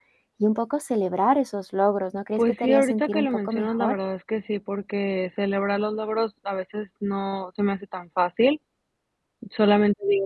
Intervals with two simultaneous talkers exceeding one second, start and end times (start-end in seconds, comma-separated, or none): 2.4-4.0